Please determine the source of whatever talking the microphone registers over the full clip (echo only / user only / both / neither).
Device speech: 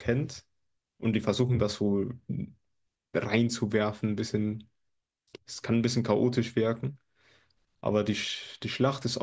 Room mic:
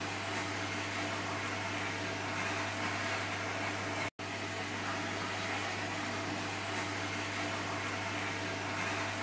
neither